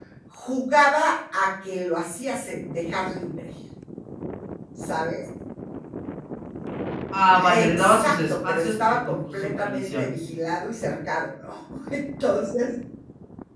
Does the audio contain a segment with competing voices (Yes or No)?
Yes